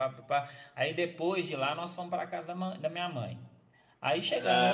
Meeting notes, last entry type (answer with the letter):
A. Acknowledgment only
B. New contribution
A